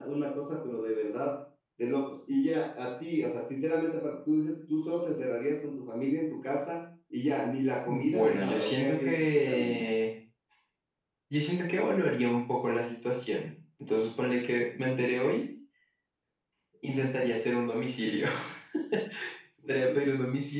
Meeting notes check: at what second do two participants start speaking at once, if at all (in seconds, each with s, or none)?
7.9 s